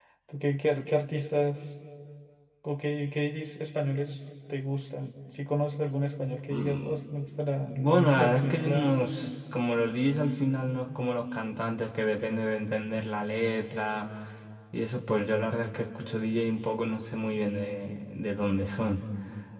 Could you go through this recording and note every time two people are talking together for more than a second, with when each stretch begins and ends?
7.7-9.0

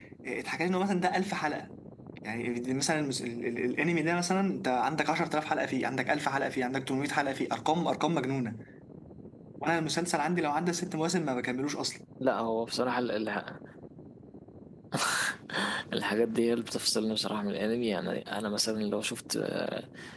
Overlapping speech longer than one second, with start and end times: none

